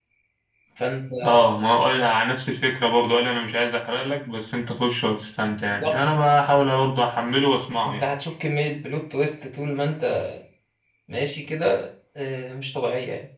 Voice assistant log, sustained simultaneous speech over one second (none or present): none